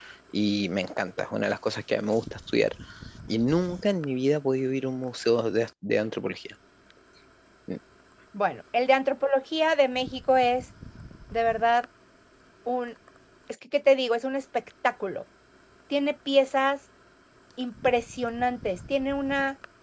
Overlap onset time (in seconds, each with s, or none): none